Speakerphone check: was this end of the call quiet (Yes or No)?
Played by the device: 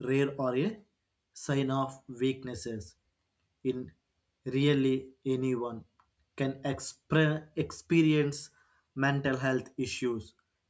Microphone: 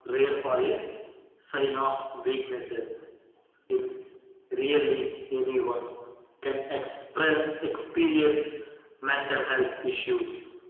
Yes